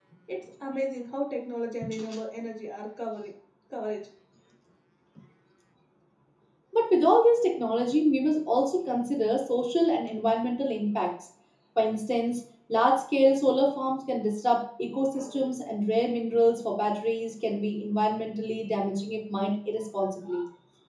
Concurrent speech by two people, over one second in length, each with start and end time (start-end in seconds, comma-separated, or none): none